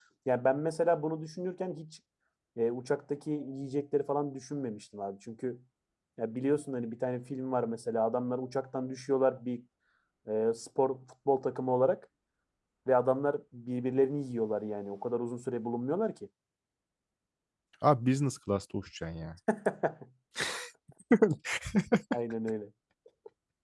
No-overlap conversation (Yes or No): Yes